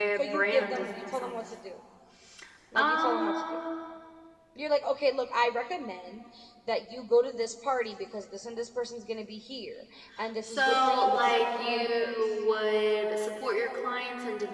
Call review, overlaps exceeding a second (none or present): present